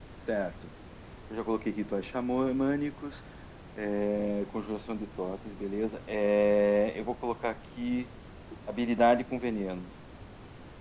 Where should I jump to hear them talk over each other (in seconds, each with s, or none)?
none